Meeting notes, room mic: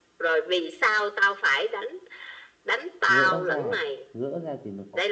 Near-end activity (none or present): present